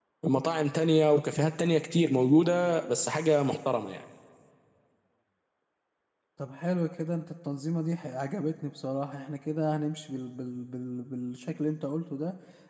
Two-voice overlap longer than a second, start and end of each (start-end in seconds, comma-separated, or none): none